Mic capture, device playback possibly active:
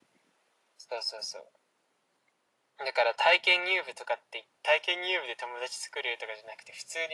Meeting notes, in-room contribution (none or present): none